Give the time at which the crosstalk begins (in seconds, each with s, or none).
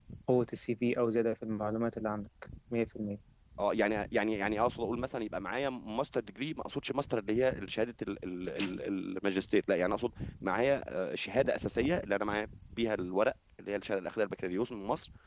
none